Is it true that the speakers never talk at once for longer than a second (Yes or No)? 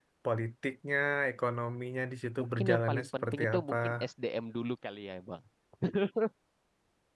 No